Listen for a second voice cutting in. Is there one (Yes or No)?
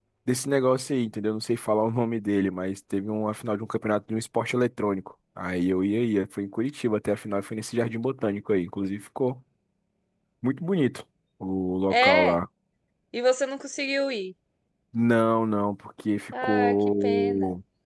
Yes